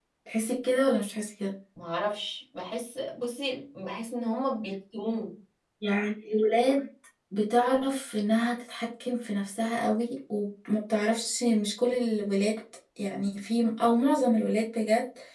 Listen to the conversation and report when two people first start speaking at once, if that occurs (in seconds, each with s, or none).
none